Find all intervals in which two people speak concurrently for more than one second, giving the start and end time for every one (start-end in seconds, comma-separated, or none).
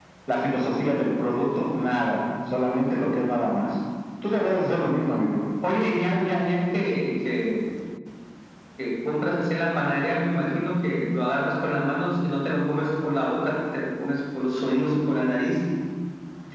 none